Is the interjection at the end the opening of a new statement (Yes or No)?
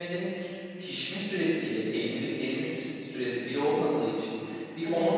No